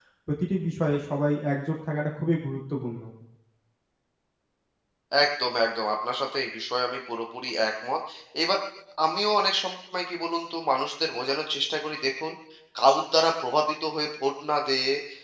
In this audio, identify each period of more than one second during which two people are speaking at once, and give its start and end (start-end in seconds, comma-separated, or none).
none